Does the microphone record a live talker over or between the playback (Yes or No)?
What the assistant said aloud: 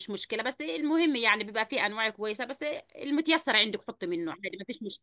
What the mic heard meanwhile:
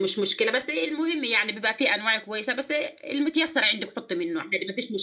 No